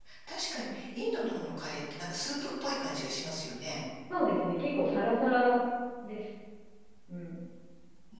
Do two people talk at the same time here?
No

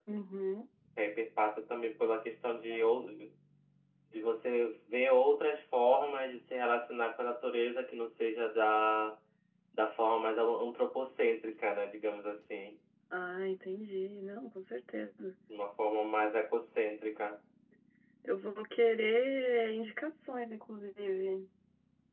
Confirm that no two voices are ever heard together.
Yes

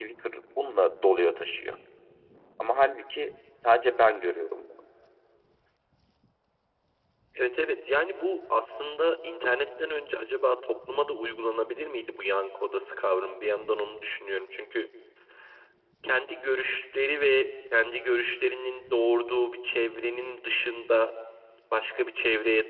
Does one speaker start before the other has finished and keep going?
No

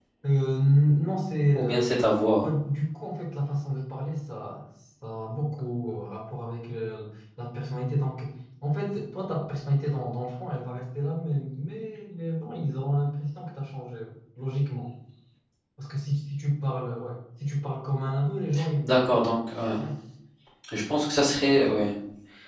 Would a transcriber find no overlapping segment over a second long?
Yes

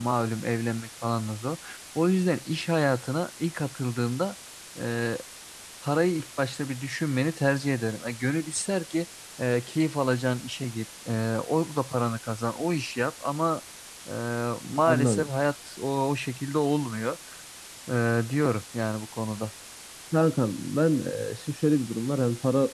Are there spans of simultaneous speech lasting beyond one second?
No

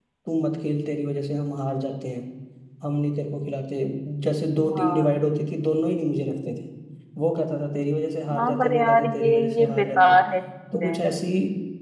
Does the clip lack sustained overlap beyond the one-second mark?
No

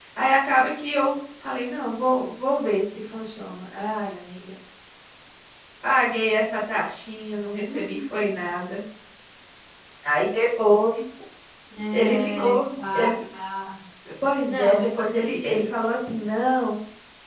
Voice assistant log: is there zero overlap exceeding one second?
No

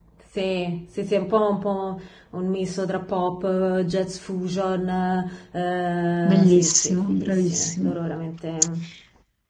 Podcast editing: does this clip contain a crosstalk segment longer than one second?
Yes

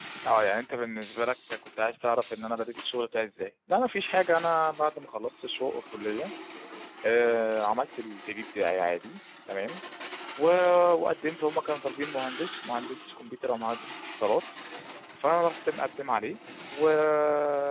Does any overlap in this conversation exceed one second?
No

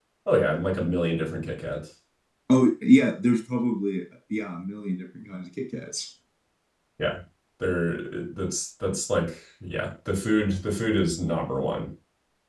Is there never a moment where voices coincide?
Yes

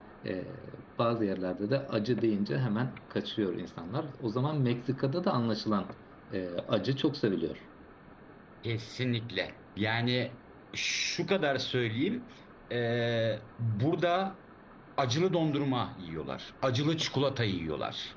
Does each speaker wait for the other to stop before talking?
Yes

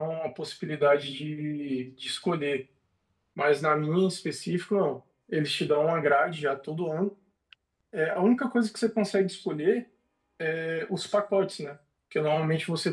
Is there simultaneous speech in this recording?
No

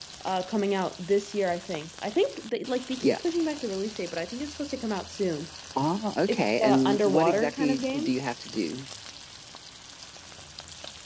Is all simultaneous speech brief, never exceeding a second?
No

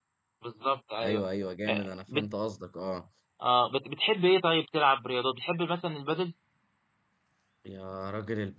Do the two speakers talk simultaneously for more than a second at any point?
No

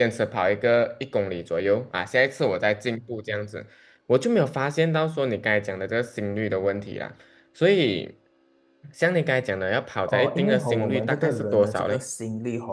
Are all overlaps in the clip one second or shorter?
No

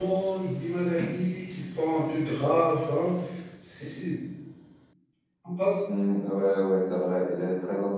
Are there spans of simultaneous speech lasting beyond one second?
No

